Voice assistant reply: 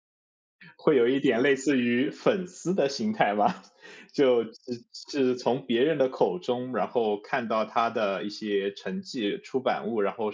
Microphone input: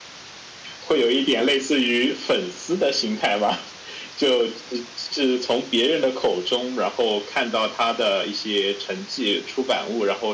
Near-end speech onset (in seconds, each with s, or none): none